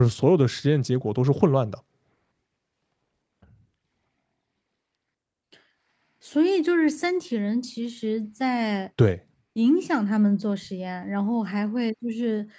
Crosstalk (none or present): none